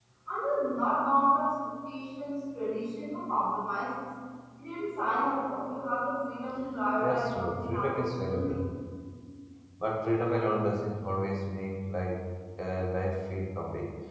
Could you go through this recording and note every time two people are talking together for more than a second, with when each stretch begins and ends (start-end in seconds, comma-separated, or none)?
7.0-8.6